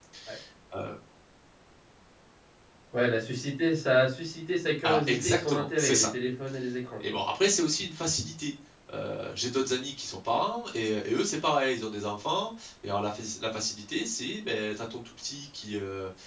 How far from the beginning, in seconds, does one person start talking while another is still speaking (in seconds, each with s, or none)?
4.9 s